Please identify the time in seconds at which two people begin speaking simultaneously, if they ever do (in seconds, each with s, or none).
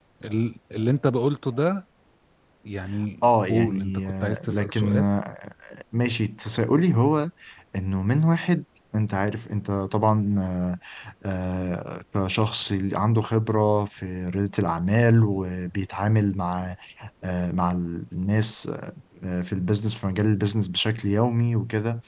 3.2 s